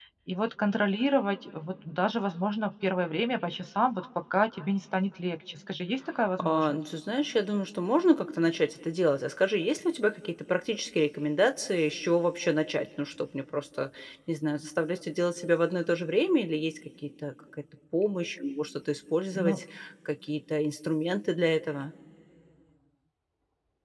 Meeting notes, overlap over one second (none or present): none